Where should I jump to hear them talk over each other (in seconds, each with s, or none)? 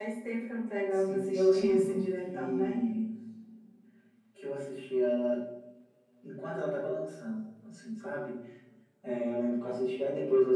0.9 s